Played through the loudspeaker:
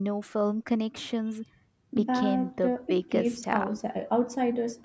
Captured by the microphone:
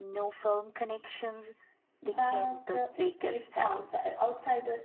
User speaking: No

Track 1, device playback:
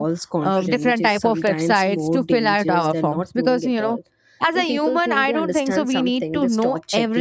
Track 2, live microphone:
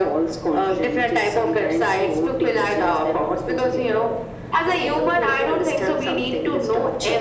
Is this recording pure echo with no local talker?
Yes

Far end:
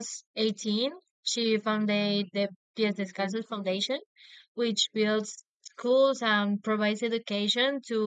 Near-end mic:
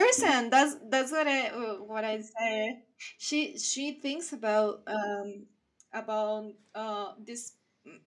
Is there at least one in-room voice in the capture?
Yes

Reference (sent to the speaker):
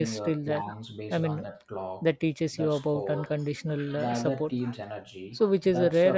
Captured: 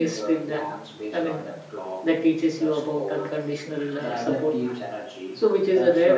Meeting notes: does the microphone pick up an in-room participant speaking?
No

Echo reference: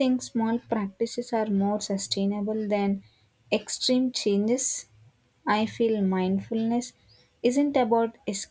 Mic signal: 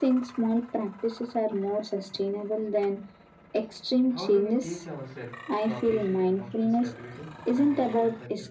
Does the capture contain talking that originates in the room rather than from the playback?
Yes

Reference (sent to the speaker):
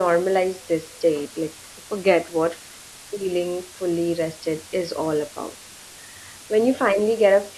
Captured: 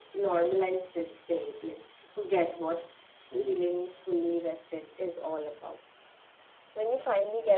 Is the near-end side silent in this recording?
No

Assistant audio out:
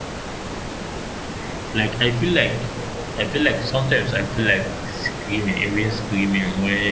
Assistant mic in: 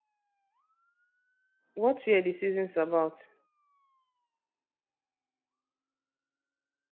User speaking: Yes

